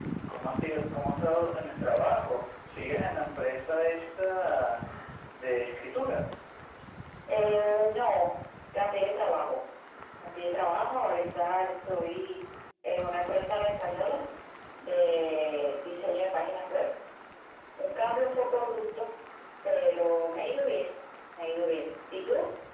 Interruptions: none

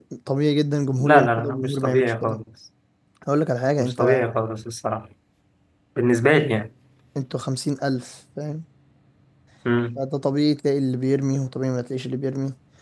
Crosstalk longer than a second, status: present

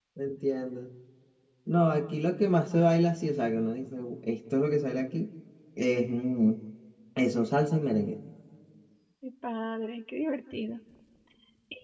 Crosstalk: none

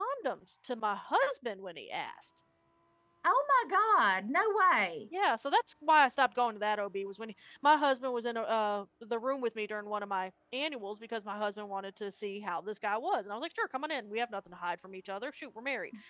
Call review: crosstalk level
none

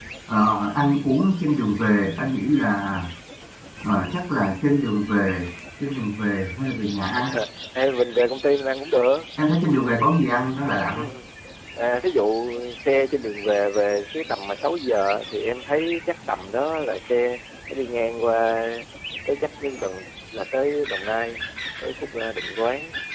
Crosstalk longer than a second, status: none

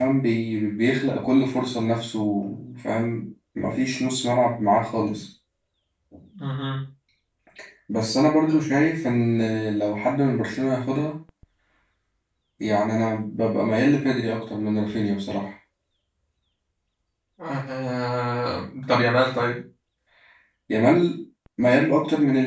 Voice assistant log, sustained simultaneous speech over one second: none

